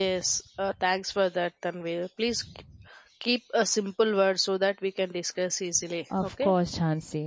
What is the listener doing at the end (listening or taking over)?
taking over